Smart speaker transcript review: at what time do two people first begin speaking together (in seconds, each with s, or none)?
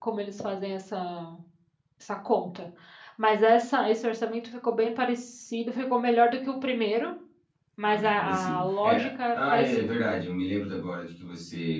7.8 s